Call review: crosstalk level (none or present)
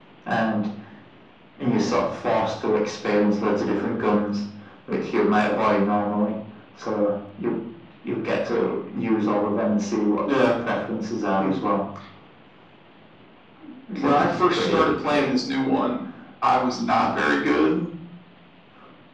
present